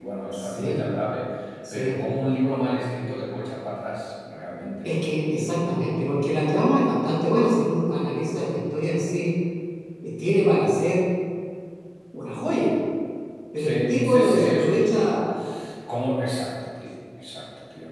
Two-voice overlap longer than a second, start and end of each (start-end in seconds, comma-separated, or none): 13.6-15.2